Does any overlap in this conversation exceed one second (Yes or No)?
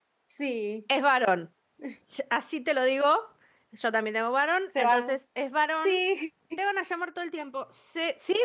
No